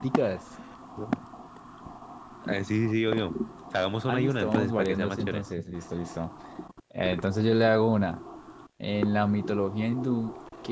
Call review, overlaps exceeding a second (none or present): present